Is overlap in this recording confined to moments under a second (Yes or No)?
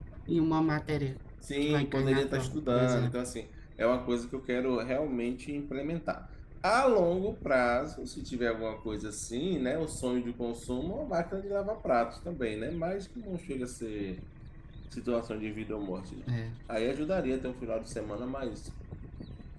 No